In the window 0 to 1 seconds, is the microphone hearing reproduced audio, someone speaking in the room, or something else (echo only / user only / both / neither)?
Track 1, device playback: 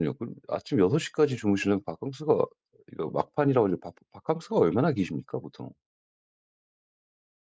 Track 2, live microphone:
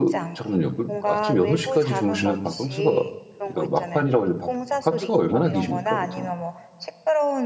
both